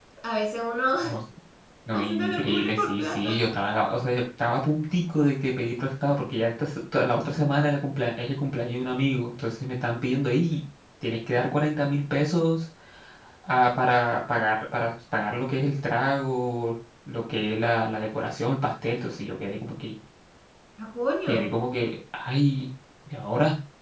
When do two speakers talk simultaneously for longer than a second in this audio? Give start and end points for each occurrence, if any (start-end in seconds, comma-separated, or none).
1.9-3.3